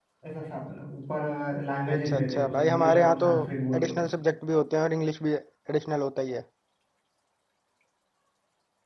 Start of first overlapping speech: 1.9 s

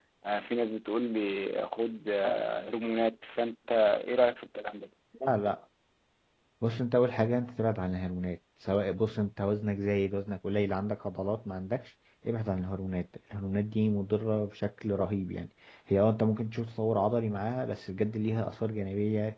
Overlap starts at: none

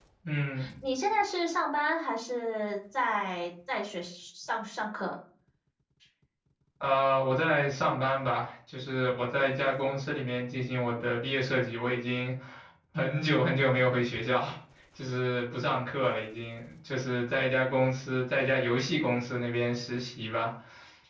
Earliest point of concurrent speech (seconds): none

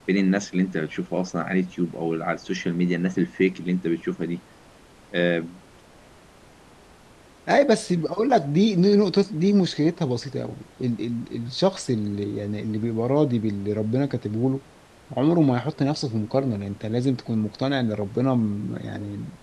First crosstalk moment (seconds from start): none

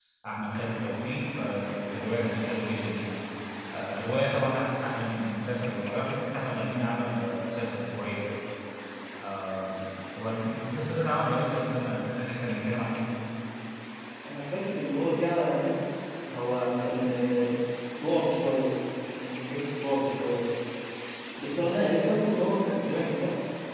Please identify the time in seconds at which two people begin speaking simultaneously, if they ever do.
none

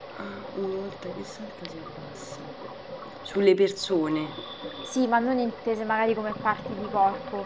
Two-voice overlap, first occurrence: none

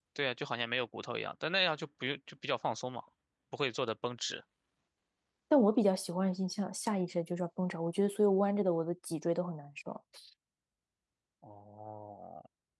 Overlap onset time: none

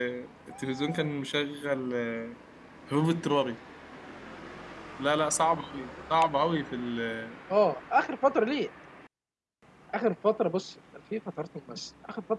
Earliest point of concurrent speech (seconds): none

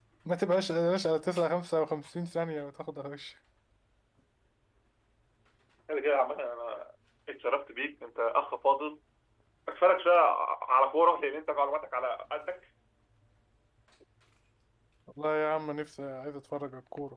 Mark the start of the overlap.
none

